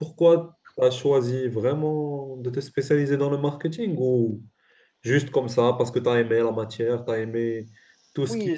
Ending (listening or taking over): taking over